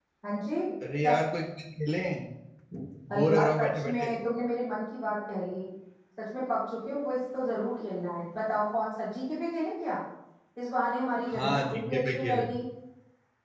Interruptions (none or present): present